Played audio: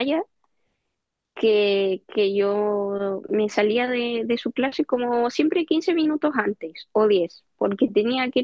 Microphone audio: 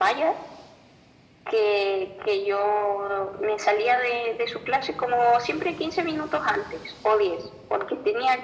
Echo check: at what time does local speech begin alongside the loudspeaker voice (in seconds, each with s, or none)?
none